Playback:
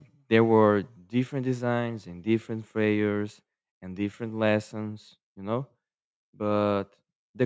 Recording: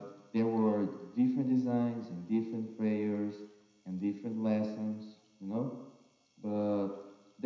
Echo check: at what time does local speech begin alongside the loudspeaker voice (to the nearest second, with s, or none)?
none